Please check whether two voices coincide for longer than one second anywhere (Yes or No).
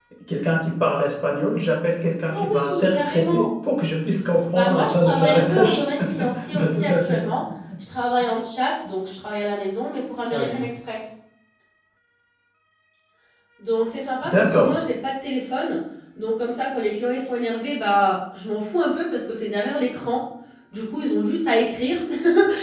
Yes